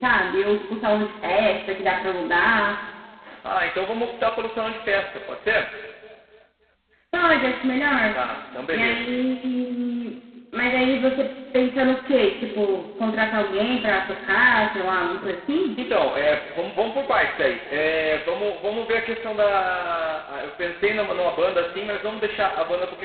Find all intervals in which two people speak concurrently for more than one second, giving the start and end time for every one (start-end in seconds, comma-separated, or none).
none